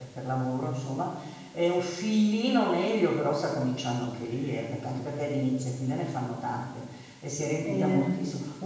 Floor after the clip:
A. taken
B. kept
B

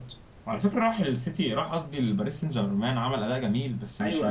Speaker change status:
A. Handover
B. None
A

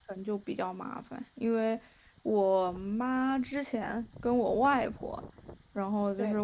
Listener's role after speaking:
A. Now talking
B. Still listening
B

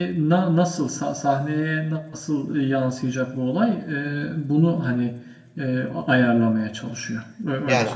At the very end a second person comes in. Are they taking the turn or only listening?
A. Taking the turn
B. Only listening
A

